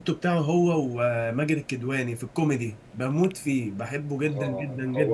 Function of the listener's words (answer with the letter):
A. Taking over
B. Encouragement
A